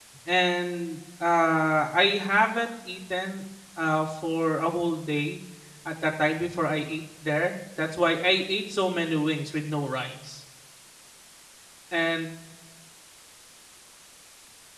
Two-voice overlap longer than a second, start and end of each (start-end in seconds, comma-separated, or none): none